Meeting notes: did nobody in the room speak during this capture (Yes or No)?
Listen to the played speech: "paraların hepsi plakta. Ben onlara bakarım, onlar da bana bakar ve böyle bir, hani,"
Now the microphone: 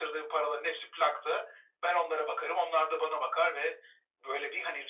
Yes